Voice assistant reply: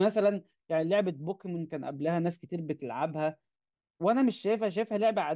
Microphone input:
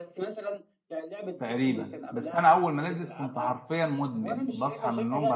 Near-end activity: present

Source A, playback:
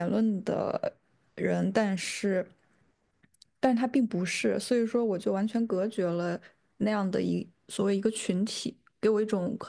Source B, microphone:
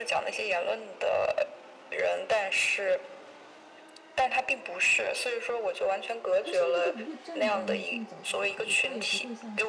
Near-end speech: present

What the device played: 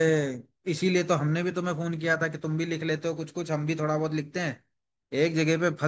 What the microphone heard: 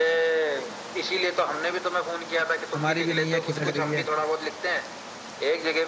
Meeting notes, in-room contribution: present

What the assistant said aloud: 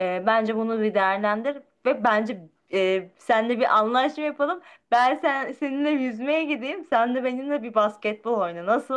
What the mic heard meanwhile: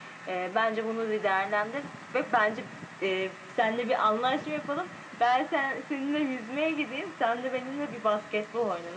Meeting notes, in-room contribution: none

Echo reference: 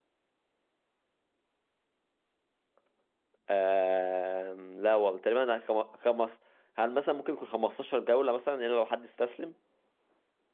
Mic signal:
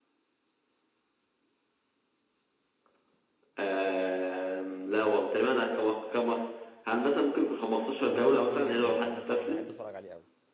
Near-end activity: present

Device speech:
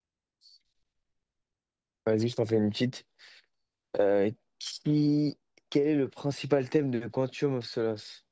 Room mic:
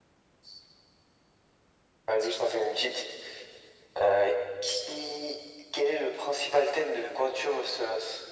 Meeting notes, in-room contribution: none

